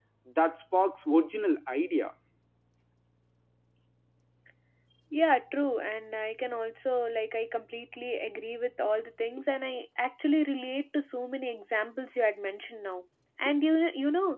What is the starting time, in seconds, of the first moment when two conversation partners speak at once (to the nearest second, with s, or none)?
none